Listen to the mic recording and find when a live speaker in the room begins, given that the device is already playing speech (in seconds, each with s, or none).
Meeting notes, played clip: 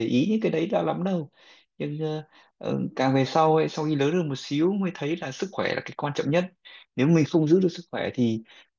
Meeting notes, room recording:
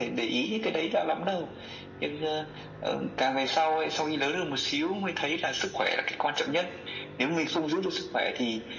none